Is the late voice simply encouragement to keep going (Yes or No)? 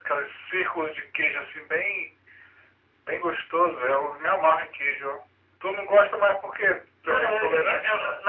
No